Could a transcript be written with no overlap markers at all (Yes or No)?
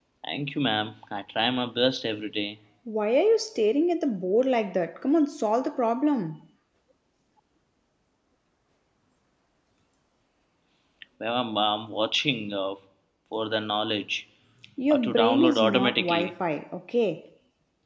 No